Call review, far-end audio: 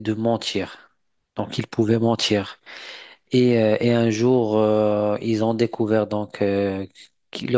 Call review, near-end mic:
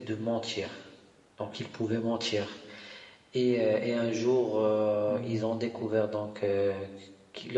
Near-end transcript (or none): hmm,